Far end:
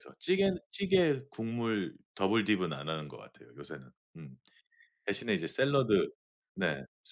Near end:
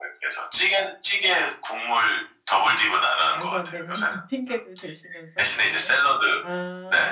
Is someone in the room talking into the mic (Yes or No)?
Yes